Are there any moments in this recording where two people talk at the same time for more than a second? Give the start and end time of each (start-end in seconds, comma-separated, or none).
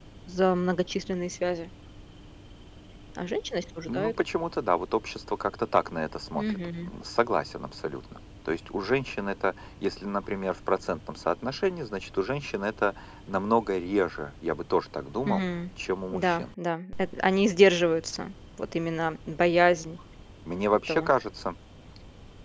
none